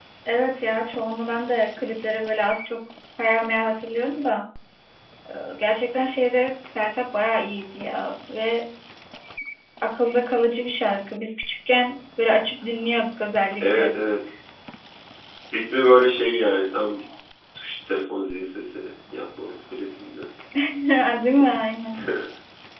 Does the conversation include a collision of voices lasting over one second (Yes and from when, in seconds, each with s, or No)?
No